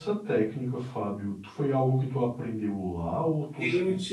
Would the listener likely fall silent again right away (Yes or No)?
No